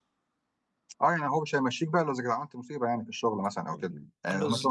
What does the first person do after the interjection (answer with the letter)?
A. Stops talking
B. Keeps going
B